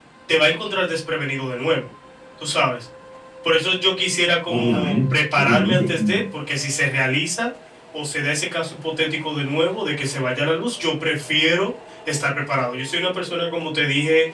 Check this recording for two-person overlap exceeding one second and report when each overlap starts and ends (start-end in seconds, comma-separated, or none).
4.5-6.2